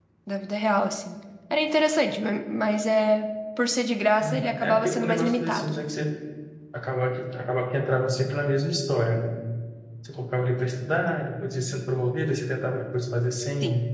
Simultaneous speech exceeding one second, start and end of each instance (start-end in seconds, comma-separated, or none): 4.2-5.8